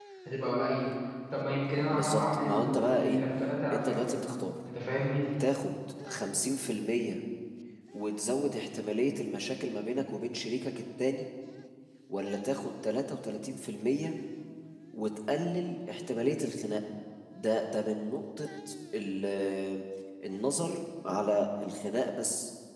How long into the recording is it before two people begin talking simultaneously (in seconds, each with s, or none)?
1.9 s